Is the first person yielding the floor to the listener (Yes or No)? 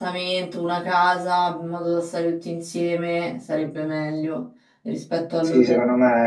Yes